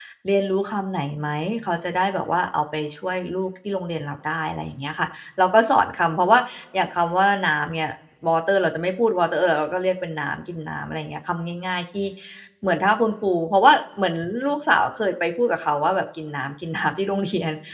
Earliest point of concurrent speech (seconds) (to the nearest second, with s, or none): none